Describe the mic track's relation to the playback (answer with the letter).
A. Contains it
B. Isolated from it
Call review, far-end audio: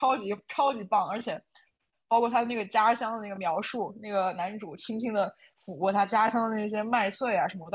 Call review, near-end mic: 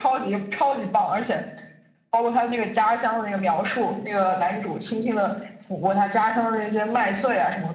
A